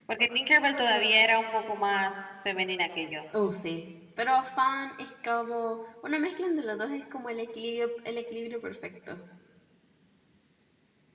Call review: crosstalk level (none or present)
none